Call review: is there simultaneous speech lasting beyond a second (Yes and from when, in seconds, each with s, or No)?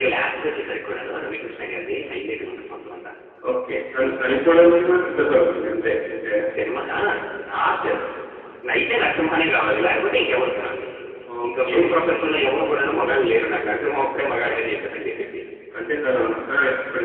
Yes, from 3.9 s